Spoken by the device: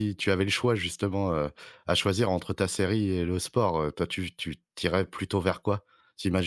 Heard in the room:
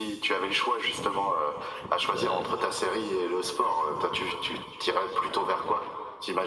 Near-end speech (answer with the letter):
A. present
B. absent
A